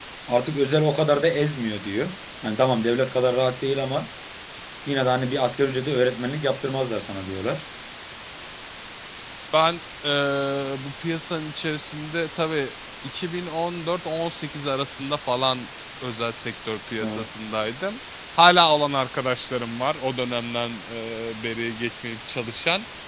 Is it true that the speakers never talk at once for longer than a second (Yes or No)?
Yes